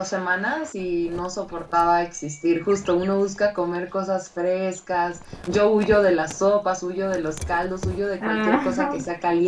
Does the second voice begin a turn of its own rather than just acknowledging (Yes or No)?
No